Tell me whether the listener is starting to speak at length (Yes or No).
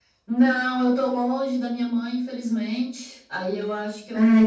No